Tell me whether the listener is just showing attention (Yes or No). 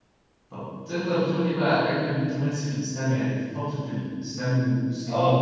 No